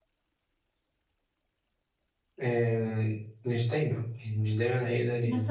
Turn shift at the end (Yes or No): Yes